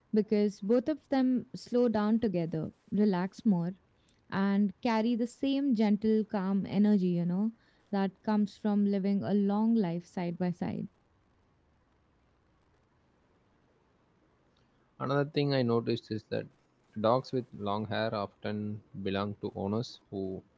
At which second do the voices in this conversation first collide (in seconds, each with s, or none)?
none